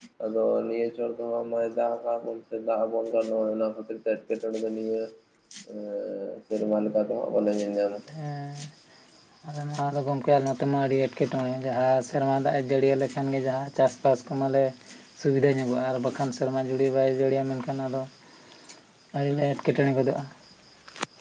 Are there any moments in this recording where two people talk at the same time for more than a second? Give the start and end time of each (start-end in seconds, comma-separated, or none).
none